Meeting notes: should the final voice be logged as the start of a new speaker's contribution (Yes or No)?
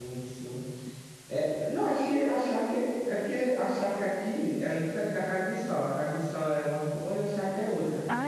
No